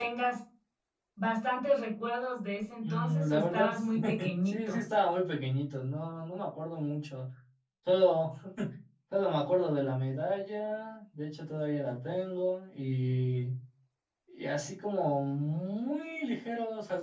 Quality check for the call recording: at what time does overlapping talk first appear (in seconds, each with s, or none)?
2.8 s